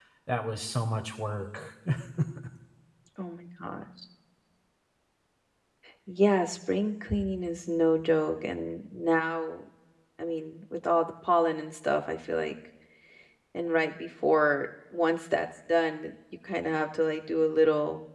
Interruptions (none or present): none